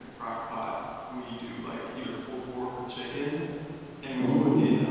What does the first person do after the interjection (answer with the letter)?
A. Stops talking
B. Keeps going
B